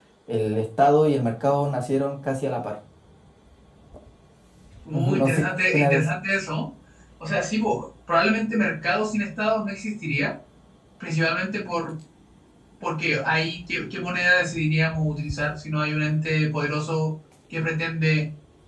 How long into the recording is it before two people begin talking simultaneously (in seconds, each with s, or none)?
4.9 s